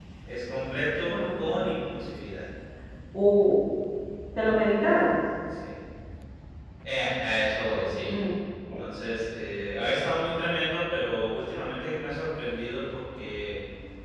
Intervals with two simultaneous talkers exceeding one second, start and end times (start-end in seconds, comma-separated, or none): none